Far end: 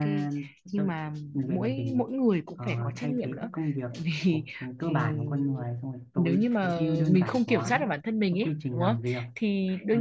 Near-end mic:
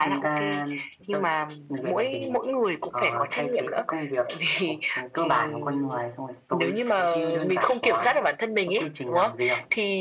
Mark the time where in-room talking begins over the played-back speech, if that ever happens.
none

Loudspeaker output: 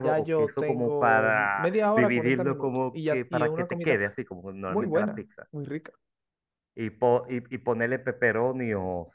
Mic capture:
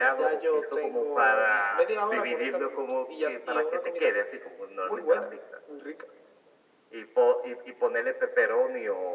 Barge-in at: none

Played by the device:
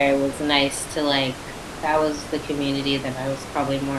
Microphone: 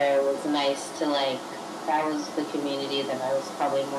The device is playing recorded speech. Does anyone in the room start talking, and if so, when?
none

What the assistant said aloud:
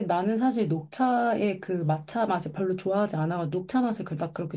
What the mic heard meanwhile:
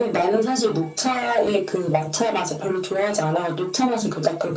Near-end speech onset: none

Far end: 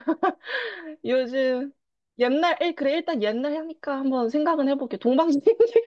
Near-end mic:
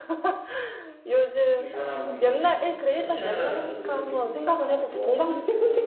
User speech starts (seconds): 2 s

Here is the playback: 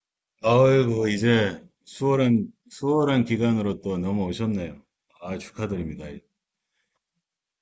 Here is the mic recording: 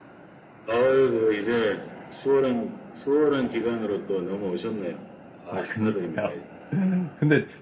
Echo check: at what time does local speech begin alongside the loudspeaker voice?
5 s

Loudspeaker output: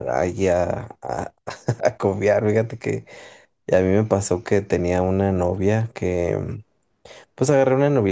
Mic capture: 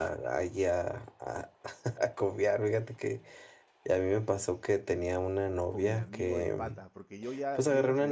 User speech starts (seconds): 6 s

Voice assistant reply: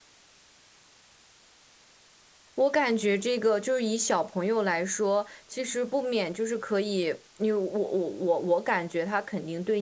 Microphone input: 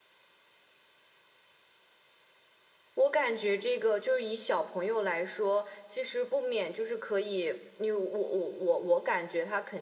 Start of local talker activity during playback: none

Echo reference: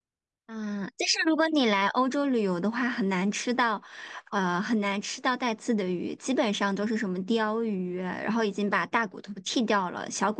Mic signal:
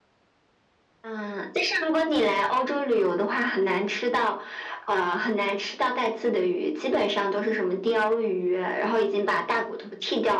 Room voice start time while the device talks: none

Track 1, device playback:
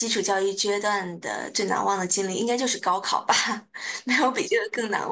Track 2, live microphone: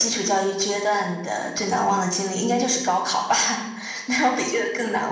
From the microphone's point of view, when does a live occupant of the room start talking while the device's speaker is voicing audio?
none

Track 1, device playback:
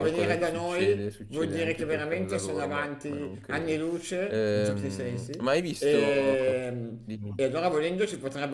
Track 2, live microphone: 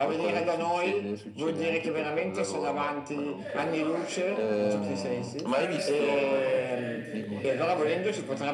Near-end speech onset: 3 s

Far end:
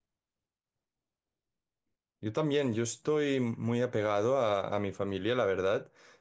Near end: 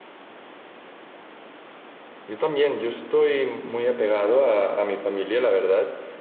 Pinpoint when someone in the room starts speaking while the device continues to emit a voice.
none

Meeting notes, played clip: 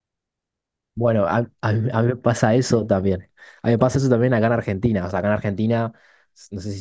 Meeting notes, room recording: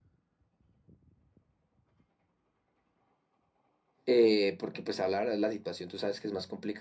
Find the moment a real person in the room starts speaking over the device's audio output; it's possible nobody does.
4 s

